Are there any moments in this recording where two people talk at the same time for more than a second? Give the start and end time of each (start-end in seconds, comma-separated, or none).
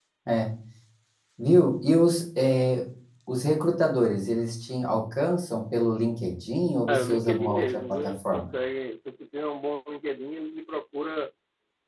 6.9-8.5